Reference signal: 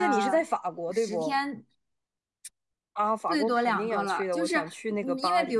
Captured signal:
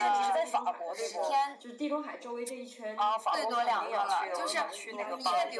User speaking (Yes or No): Yes